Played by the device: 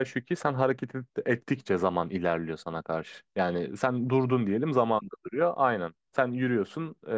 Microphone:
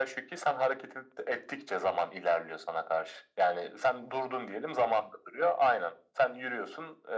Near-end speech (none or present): none